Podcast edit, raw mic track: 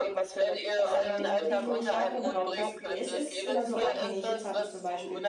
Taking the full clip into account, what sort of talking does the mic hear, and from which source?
both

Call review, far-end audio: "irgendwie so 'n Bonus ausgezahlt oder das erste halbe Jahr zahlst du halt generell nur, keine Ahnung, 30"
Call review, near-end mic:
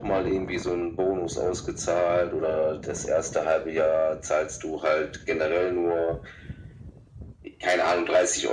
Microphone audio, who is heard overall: echo only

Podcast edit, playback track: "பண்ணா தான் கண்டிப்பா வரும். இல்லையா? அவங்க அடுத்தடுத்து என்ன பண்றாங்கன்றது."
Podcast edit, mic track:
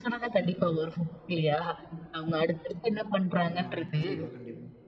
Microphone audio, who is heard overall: both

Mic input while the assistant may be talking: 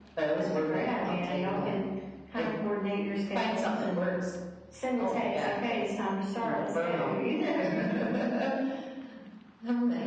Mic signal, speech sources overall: echo only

